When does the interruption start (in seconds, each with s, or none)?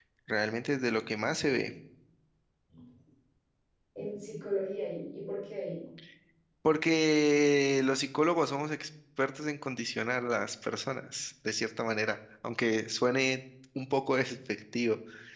none